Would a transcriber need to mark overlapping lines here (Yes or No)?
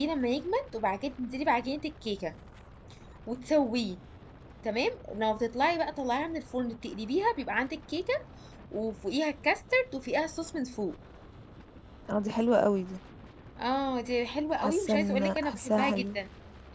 Yes